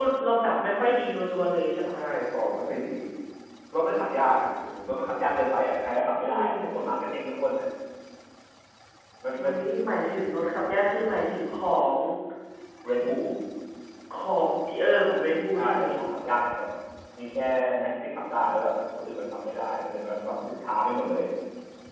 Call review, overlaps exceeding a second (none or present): none